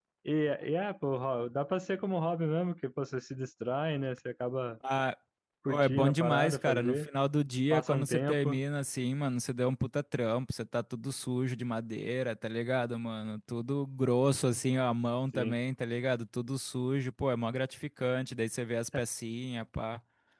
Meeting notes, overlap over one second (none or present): present